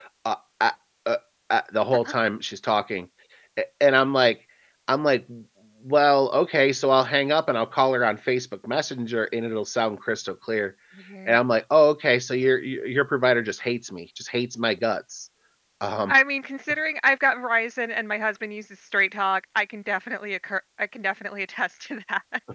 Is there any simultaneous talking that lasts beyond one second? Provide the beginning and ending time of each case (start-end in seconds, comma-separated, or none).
none